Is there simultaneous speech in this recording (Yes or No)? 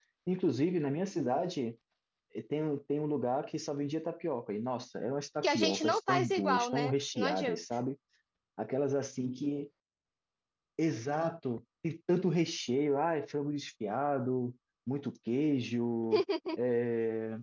Yes